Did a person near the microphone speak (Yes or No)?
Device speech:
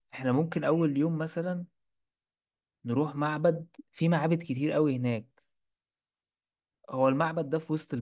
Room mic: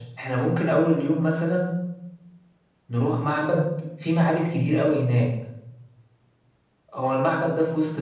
No